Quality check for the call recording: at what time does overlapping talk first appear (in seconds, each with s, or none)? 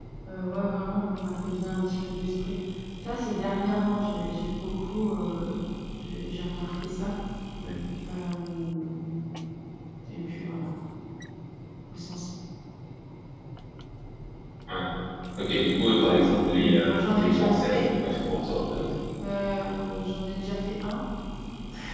16.6 s